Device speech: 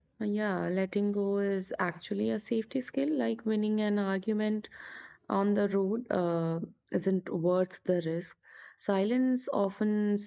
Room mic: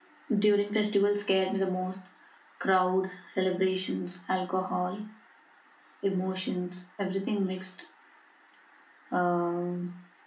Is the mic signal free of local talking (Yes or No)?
No